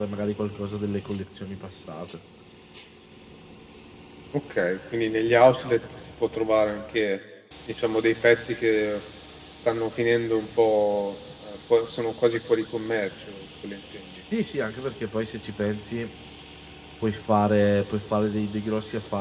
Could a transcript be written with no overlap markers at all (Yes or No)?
Yes